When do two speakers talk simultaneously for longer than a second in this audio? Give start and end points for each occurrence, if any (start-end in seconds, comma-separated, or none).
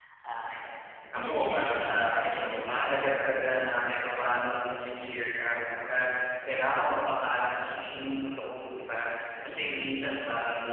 1.1-2.9